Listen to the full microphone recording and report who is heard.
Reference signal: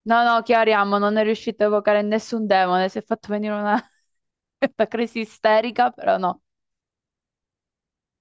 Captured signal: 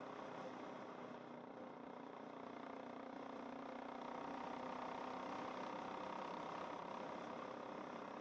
neither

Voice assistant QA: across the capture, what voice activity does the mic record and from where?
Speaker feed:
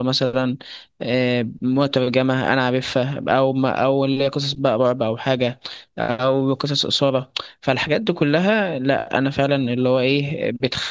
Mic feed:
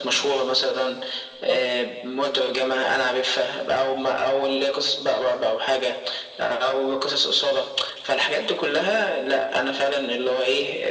both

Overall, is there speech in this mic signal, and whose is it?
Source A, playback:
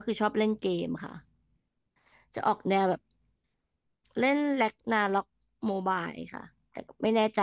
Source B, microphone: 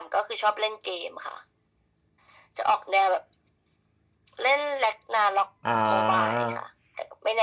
both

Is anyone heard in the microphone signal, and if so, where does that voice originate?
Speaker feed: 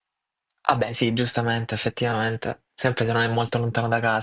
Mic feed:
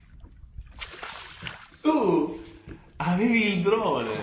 user only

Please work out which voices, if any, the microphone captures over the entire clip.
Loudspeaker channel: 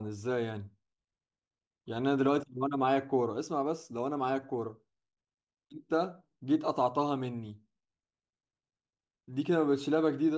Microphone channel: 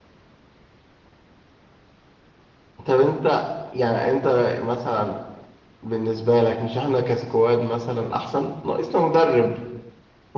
user only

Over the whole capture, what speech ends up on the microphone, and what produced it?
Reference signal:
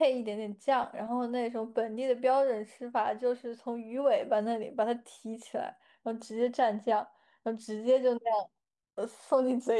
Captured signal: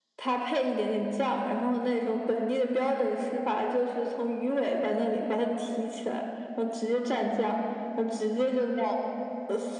echo only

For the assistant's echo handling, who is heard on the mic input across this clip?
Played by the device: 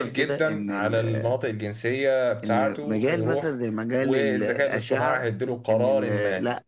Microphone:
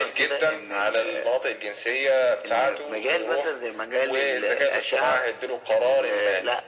echo only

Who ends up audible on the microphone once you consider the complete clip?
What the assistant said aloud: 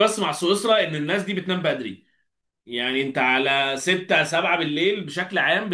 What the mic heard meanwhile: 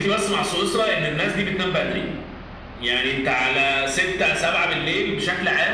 echo only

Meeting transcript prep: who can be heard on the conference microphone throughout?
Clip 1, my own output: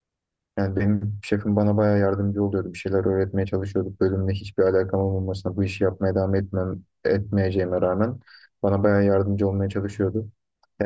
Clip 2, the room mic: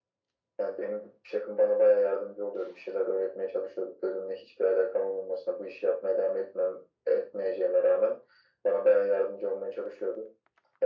echo only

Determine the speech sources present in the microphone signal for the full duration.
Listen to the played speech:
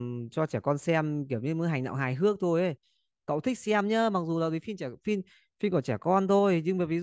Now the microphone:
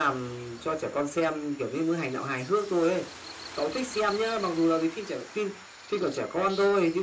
echo only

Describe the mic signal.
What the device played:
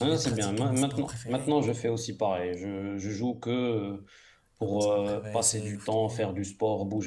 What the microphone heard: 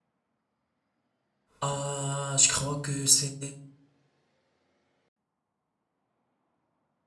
user only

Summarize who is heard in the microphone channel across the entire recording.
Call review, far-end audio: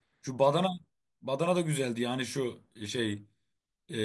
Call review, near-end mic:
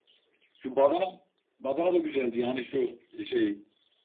echo only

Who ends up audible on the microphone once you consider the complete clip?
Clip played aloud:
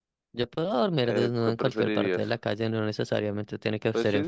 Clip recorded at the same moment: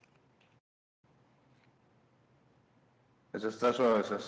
user only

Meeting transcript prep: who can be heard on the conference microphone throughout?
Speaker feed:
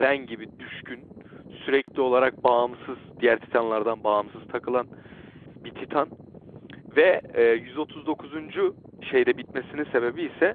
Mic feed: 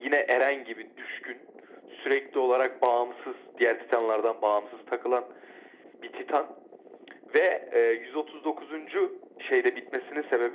echo only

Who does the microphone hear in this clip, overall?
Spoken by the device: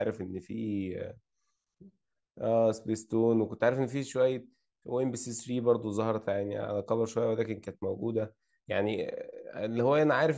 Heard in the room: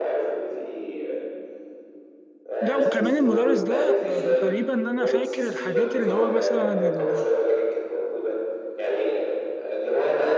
both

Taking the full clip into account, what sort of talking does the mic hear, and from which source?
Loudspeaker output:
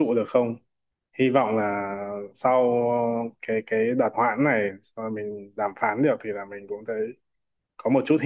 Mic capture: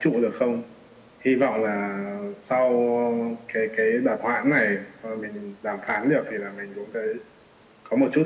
echo only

